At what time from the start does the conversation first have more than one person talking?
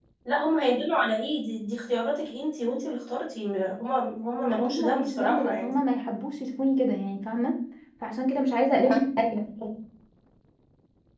4 s

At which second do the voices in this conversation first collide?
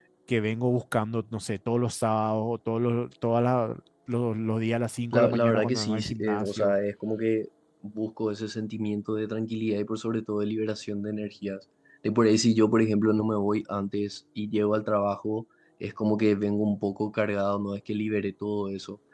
5 s

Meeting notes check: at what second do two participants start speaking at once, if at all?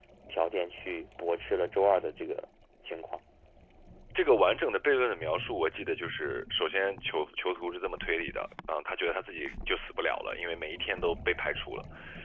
none

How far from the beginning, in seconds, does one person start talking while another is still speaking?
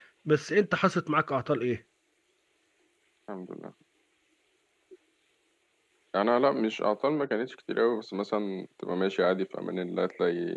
none

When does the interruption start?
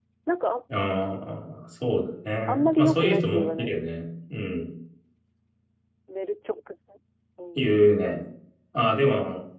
2 s

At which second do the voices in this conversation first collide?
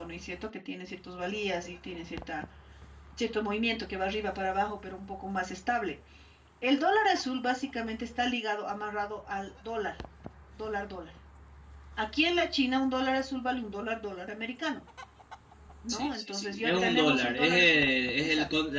16 s

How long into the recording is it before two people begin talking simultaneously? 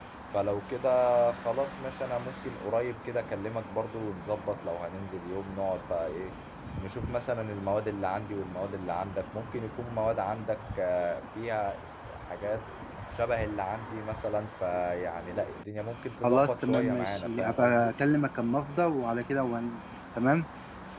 16 s

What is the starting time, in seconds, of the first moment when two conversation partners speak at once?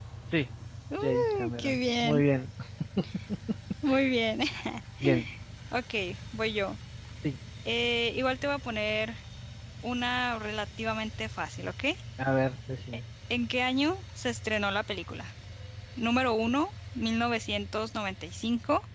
1 s

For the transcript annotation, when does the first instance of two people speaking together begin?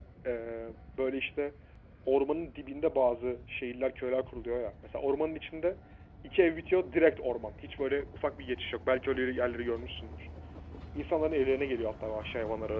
none

